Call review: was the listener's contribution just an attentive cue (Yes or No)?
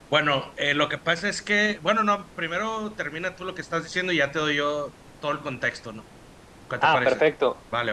No